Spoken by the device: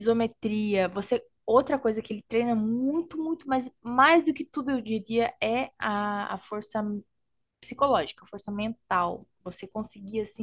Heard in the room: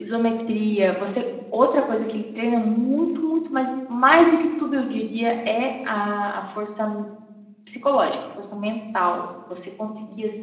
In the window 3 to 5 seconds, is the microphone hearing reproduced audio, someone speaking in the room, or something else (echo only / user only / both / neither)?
echo only